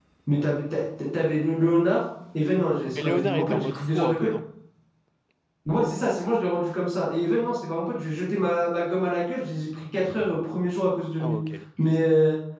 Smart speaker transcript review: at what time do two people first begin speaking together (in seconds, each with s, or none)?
3.0 s